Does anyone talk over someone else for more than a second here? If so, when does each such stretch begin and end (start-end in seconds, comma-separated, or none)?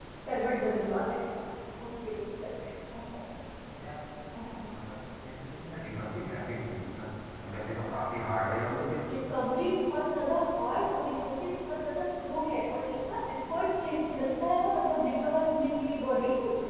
none